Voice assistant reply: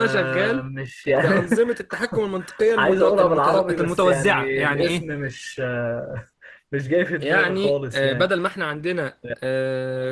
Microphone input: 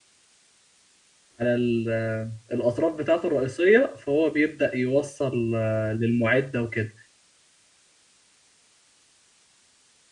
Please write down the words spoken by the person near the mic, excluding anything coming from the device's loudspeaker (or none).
على ال- الأطراف بتاعته الرئيسية فهو بيبدأ يوصل آه، للمعدة وكده